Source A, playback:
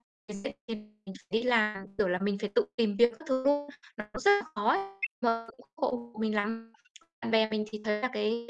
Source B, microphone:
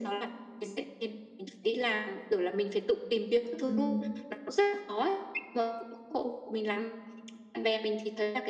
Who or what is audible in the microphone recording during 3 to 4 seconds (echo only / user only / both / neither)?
both